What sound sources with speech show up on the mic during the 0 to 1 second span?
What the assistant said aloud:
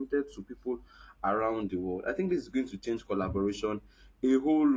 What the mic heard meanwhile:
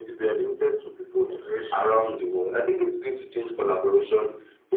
echo only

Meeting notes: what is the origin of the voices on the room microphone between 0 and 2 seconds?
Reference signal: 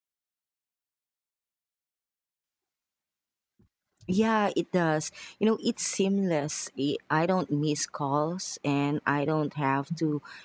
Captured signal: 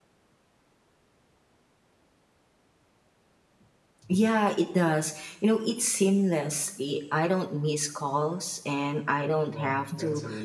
neither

